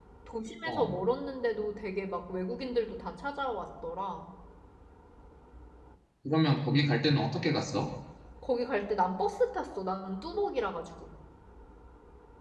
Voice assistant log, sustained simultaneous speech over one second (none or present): none